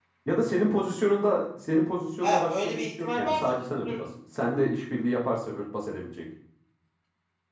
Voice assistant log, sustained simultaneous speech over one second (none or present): present